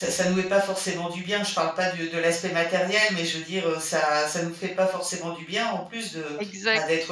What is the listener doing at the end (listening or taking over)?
listening